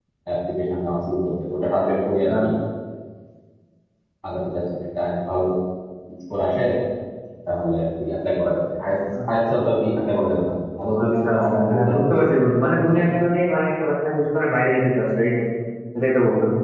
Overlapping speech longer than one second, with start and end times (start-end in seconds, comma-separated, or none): 11.0-12.4